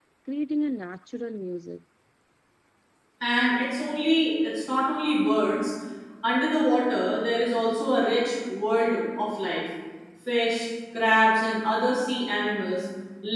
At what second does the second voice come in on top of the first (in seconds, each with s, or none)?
none